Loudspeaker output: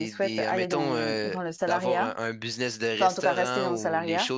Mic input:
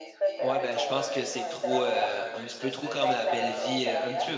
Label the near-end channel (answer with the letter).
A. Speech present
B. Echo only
A